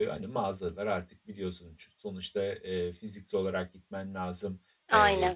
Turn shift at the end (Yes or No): No